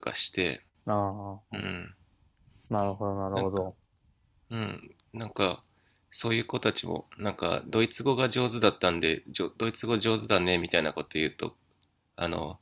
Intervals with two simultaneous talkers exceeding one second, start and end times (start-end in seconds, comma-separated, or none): none